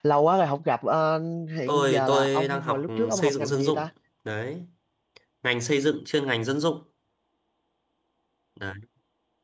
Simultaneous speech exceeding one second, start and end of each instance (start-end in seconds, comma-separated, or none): 1.7-3.9